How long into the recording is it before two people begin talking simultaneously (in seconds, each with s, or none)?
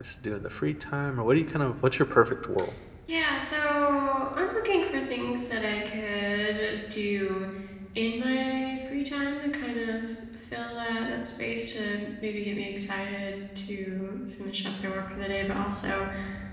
none